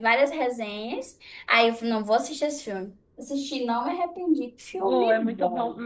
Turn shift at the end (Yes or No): Yes